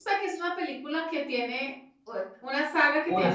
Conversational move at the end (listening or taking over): listening